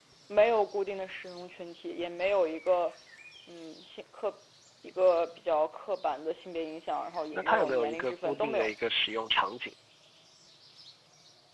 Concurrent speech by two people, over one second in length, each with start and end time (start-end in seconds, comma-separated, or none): 7.3-8.7